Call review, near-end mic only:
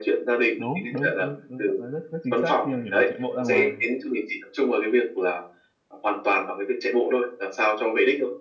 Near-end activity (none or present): present